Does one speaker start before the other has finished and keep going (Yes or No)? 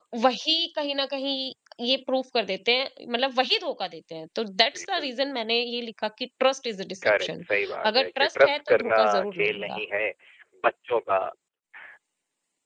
Yes